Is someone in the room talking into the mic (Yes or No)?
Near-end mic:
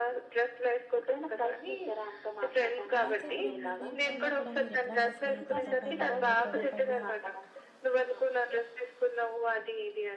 Yes